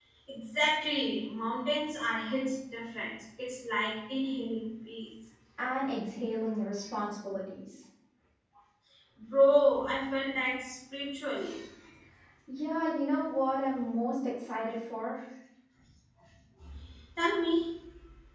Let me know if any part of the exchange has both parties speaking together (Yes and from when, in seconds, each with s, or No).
No